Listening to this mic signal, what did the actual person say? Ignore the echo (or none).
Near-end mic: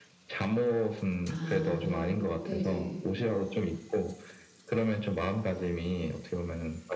아 그래요? 네네.